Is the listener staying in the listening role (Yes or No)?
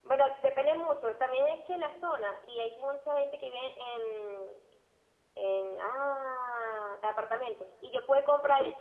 Yes